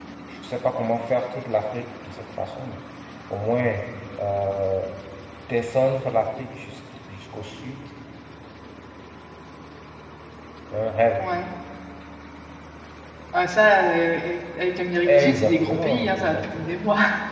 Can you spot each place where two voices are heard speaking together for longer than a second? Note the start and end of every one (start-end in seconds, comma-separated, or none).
15.1-16.8